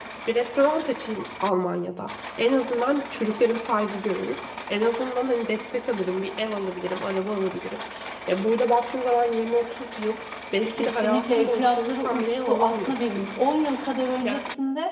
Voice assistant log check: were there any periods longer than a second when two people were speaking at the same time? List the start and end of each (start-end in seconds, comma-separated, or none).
10.7-13.2